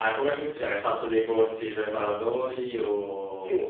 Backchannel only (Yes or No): No